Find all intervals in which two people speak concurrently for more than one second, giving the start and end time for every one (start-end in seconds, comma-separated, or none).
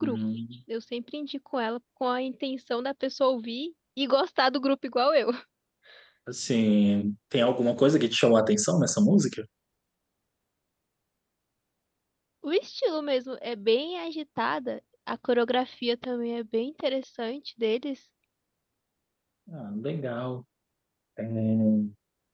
none